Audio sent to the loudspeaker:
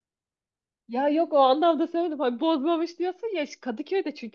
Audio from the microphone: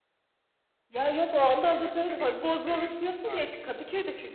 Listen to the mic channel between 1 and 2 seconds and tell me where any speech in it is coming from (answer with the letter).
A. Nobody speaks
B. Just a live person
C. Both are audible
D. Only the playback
C